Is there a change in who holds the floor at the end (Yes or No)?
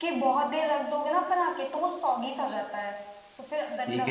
Yes